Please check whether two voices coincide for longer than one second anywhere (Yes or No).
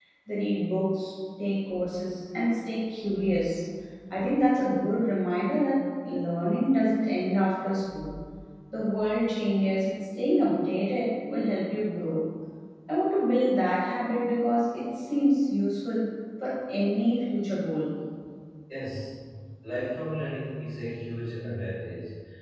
No